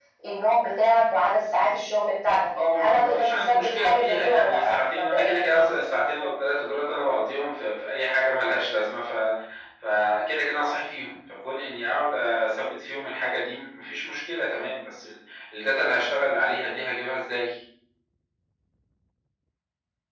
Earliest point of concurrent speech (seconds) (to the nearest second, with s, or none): 3 s